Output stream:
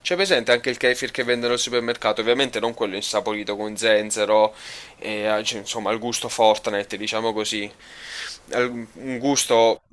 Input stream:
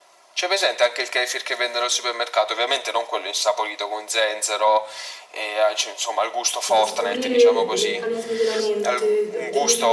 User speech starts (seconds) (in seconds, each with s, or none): 6.6 s